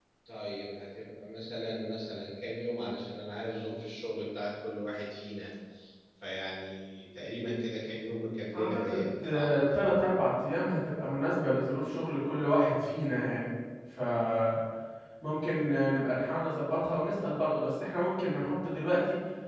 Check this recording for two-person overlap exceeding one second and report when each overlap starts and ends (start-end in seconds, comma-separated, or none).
8.5-9.9